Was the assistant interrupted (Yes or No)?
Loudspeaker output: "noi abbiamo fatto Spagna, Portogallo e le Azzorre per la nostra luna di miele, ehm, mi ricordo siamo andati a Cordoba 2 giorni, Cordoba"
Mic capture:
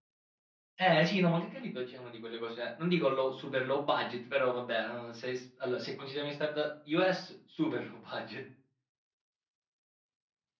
Yes